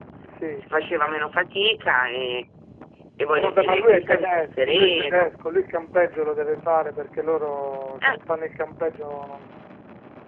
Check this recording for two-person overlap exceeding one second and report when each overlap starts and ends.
3.4-5.3

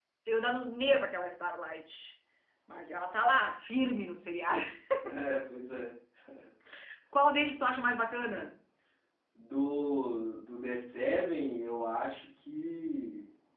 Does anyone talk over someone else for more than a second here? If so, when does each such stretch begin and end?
none

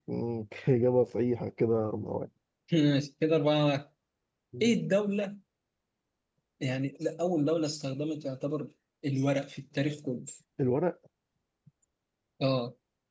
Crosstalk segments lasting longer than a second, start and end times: none

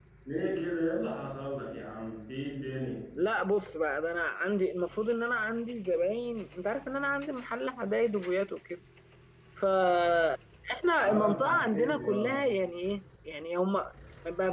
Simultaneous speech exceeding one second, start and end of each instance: 11.0-12.3

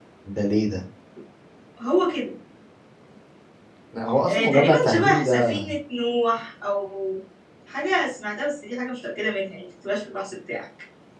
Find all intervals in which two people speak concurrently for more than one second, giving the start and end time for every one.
4.3-5.6

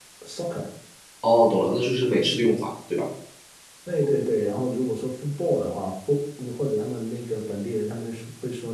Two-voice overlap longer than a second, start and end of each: none

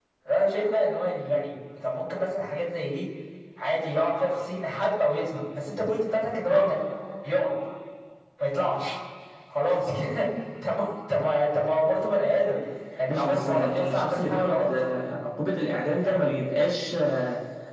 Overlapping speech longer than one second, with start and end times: 13.1-14.7

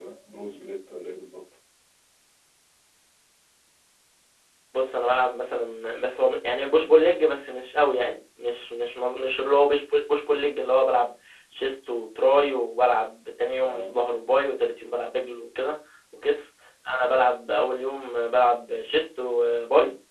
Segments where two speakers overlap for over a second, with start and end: none

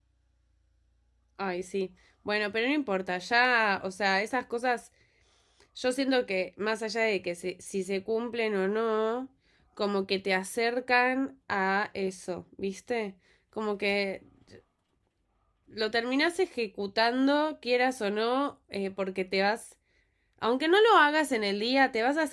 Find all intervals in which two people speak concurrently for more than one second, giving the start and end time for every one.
none

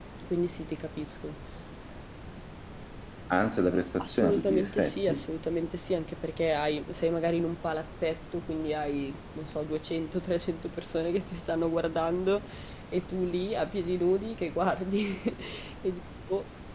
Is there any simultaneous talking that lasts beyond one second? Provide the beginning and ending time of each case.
4.0-5.2

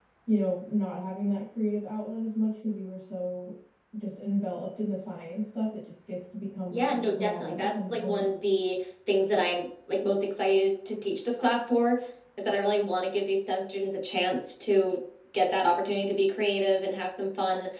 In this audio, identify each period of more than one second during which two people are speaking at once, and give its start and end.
6.7-8.3

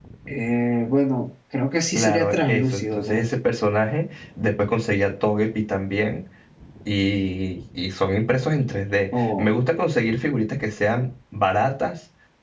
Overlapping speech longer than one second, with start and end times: 2.0-3.3

